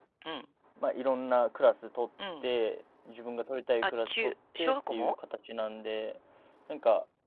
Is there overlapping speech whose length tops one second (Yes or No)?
Yes